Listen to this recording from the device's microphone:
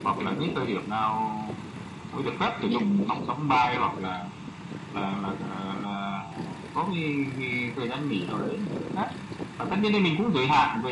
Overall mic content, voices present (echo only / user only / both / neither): both